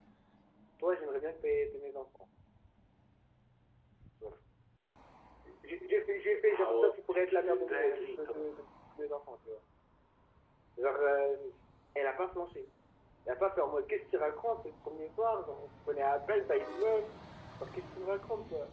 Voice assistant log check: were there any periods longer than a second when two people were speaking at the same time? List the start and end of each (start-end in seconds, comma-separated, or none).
6.5-8.5